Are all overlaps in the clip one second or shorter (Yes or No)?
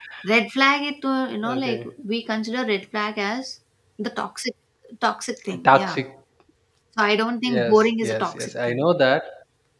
No